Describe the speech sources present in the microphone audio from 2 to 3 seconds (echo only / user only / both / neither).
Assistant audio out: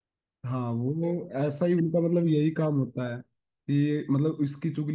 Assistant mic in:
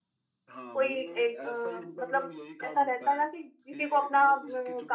both